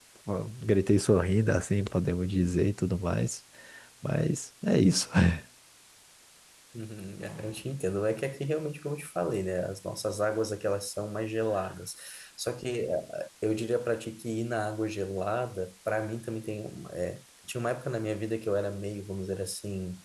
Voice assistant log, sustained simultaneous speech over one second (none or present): none